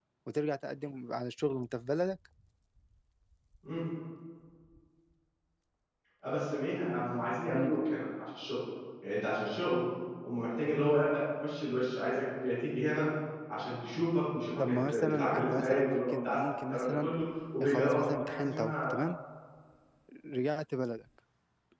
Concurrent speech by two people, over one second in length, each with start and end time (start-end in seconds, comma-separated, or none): 14.6-17.1, 17.6-18.9